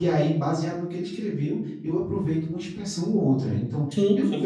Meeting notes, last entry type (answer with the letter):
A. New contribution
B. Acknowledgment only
B